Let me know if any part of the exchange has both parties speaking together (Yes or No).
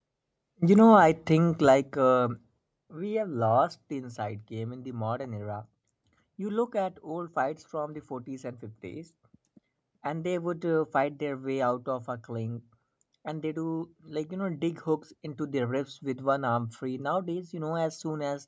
No